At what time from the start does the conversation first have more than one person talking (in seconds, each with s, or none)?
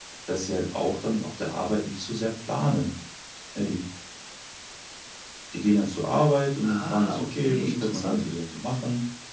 6.6 s